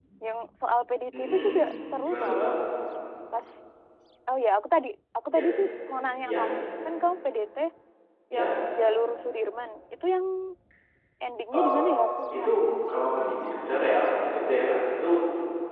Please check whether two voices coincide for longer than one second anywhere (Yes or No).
No